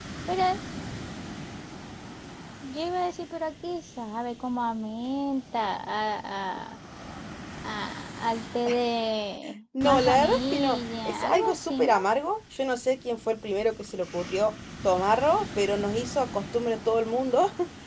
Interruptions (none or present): present